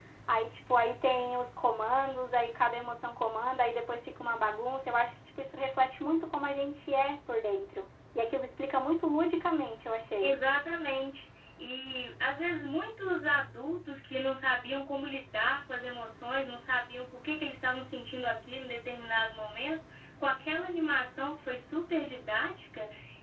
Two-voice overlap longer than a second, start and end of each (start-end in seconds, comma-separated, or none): none